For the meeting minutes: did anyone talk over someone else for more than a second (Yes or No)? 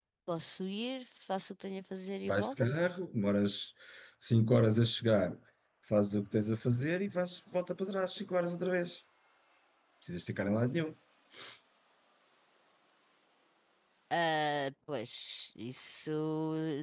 No